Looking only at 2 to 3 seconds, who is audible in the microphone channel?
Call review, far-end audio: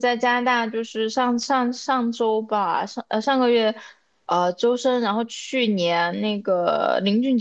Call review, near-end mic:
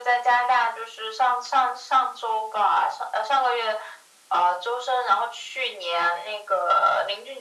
echo only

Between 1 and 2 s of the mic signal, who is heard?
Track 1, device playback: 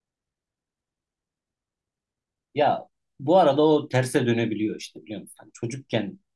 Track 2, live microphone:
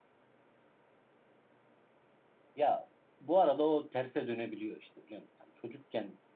neither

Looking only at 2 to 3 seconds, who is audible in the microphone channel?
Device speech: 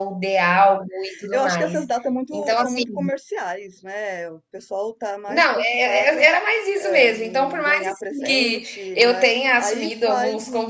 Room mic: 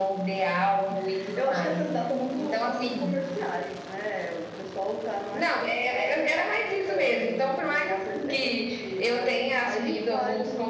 echo only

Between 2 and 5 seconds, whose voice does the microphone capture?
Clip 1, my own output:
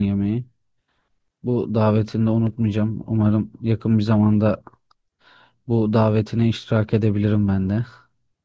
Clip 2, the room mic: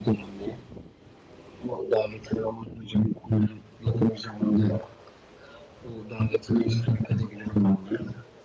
echo only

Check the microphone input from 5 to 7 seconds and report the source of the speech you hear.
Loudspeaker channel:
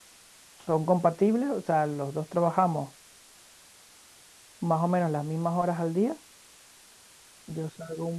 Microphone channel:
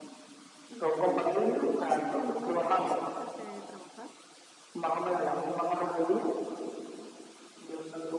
echo only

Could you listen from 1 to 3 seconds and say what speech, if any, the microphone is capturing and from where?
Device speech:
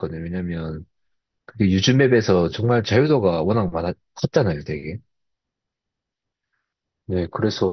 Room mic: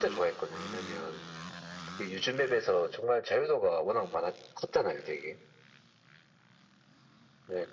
echo only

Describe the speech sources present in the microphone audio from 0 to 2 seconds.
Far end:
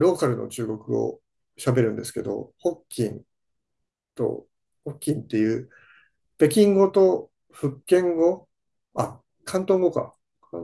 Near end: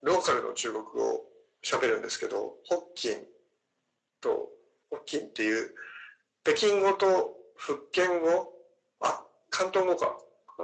echo only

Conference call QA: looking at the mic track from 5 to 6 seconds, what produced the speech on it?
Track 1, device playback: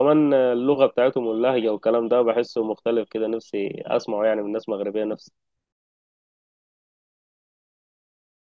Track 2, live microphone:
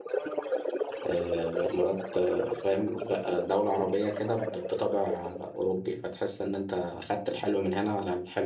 both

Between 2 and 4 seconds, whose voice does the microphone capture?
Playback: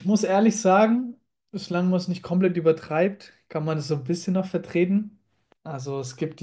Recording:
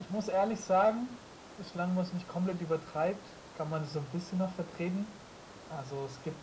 echo only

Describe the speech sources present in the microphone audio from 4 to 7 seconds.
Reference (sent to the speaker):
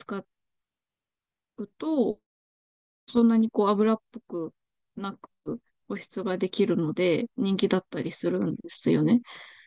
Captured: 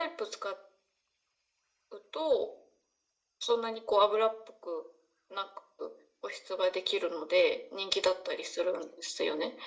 echo only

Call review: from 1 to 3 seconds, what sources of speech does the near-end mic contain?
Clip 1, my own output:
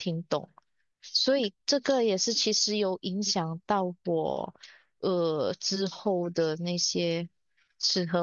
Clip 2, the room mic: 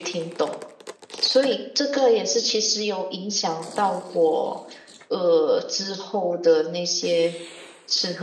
echo only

